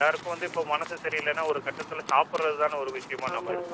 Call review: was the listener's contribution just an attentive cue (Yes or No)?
No